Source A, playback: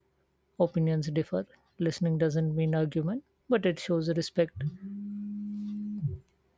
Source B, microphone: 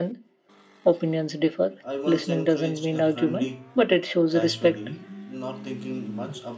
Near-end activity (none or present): present